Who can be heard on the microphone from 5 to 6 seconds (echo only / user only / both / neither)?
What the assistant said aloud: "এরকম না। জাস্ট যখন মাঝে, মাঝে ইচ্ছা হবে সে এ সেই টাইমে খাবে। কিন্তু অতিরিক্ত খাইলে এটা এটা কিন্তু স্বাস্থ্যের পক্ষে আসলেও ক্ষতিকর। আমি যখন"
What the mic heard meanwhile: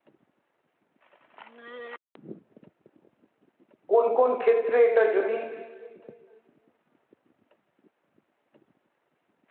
user only